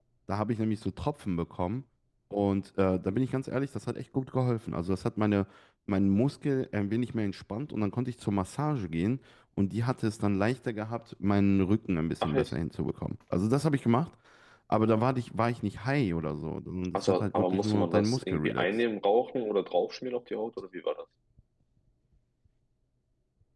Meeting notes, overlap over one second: present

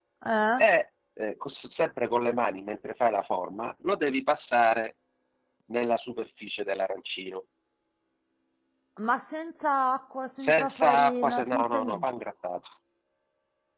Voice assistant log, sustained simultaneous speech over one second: present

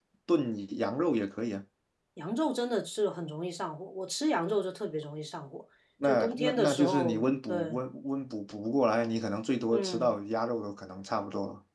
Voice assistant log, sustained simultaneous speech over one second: present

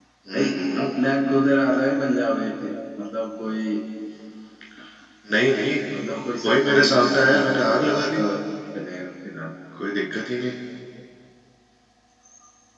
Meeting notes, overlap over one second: present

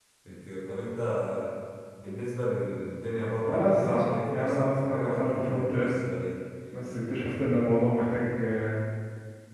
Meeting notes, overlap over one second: present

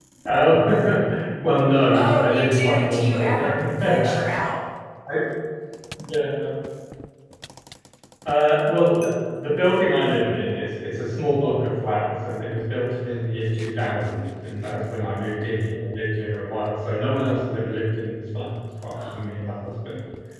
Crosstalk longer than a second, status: present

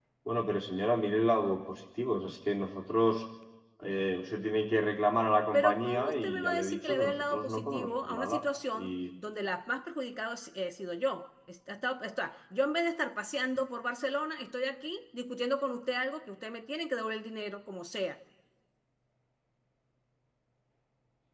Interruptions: present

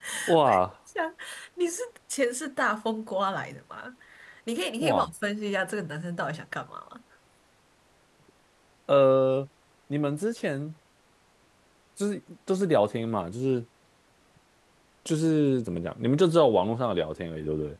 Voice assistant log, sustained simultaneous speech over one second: none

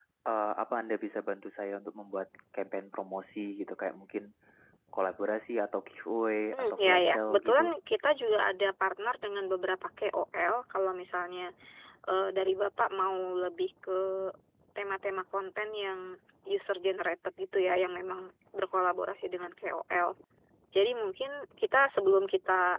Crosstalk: present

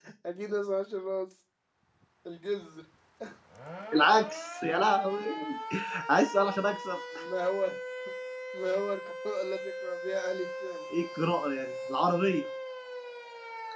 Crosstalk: none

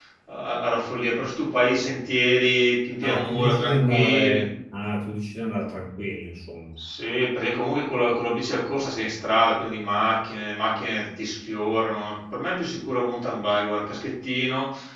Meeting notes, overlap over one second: present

